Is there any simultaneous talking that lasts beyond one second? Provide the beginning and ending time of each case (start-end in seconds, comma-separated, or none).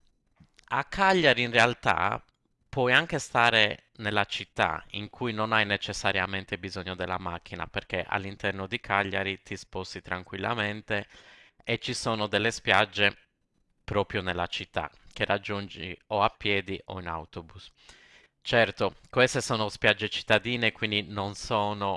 none